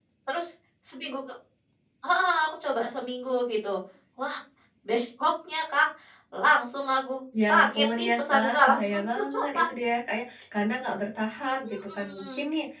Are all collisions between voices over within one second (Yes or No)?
No